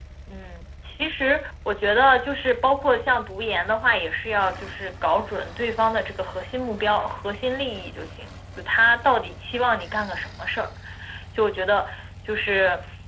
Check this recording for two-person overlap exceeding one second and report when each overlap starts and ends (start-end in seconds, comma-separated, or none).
none